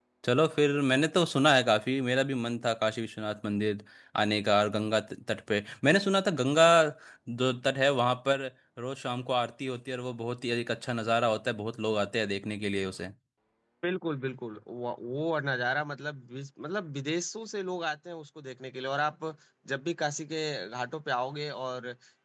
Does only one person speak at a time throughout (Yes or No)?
Yes